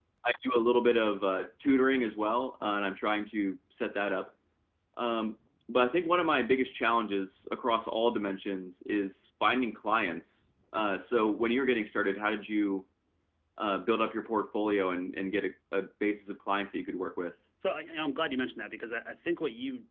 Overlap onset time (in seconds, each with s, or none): none